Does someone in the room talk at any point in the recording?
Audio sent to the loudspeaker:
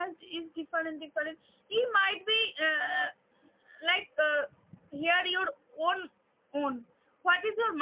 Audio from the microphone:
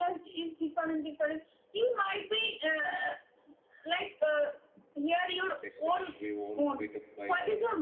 Yes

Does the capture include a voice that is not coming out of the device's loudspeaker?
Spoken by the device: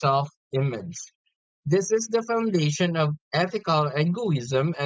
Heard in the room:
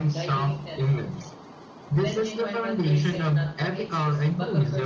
Yes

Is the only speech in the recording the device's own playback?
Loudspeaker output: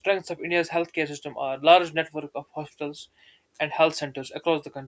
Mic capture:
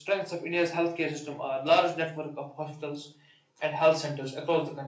Yes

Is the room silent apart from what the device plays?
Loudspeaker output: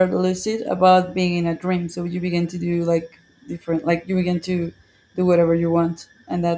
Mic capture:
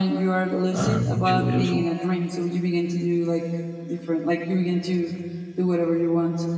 No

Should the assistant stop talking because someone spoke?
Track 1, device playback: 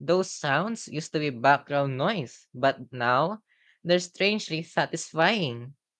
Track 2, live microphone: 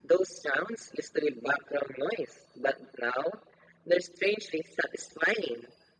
No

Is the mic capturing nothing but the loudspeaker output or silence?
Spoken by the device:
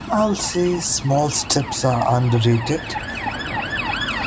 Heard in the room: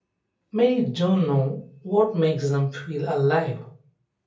No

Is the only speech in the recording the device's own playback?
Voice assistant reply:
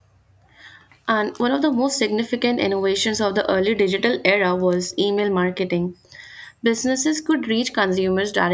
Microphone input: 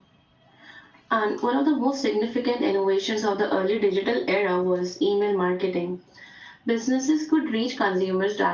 Yes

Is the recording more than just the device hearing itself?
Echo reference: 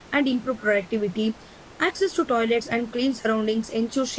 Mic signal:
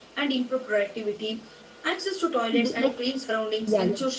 Yes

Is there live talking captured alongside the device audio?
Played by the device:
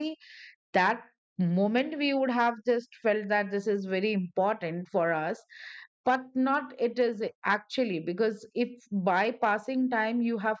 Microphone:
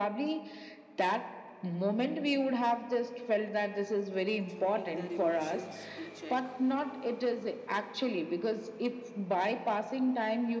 Yes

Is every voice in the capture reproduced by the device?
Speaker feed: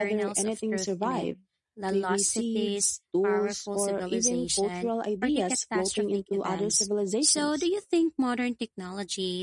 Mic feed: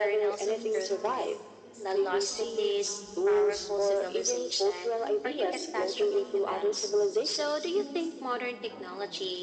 No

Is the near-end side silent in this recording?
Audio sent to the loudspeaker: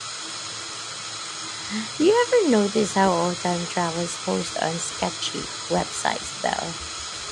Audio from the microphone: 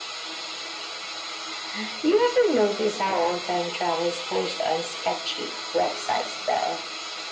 Yes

